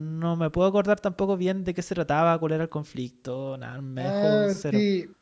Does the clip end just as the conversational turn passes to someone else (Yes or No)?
Yes